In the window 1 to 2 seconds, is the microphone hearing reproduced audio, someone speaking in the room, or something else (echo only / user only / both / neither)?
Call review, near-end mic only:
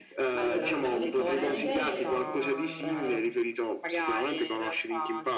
both